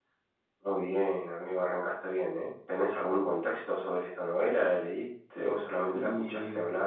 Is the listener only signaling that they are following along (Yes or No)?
No